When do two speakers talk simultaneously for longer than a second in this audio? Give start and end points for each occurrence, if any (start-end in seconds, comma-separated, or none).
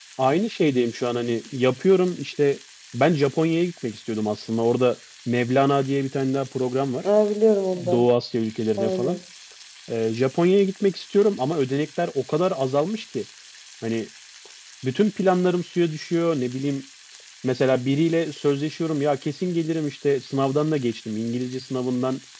none